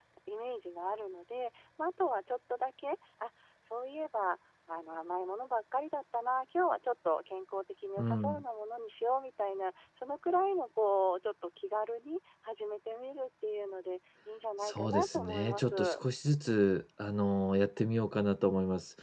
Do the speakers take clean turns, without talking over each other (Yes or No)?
No